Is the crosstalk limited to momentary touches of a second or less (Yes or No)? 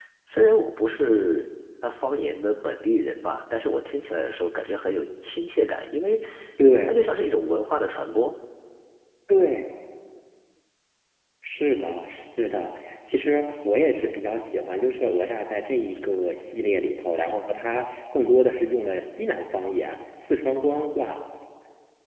Yes